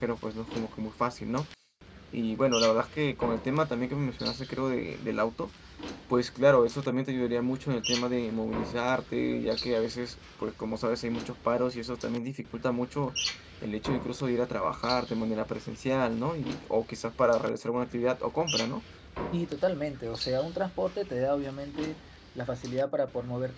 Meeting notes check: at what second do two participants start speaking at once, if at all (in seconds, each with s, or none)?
none